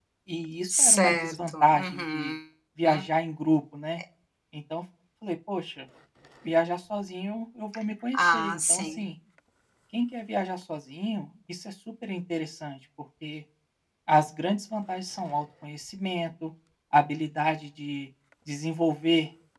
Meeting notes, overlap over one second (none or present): present